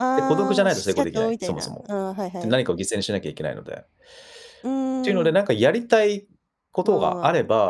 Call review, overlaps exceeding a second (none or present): present